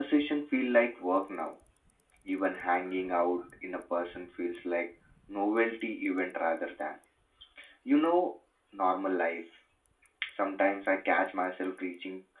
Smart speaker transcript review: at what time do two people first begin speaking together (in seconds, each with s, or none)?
none